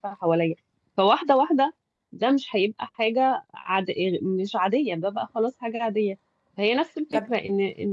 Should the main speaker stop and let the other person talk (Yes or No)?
No